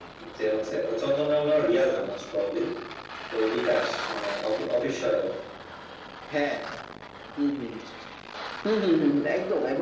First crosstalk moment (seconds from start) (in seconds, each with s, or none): none